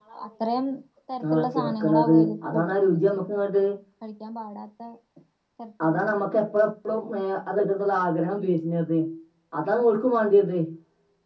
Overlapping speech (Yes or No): Yes